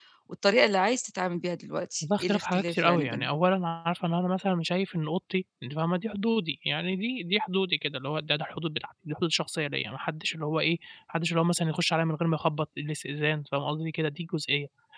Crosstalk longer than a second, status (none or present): present